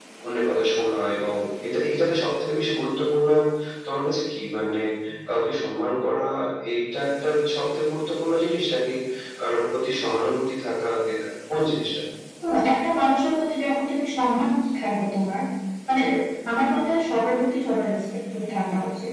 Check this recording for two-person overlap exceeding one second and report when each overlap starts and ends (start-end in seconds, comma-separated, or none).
none